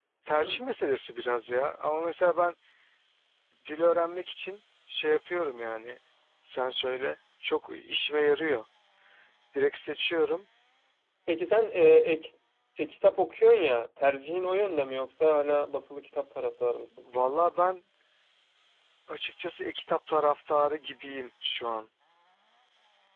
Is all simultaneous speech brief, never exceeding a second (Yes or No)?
Yes